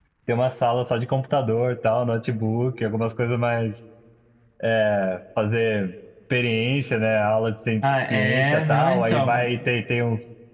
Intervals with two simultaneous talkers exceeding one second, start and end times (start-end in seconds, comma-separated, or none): 8.1-9.4